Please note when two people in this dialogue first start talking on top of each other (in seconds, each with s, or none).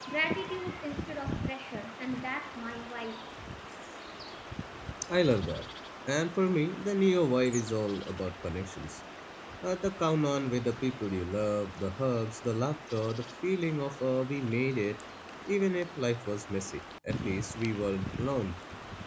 none